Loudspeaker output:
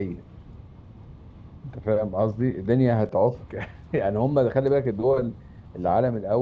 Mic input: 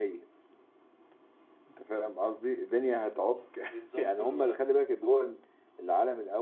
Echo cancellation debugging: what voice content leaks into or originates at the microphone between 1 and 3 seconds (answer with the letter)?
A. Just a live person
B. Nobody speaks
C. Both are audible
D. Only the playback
D